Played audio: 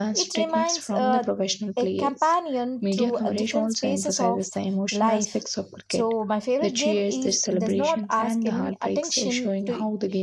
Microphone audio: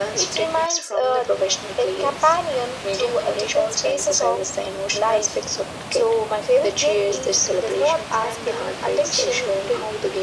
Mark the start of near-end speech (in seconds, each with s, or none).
none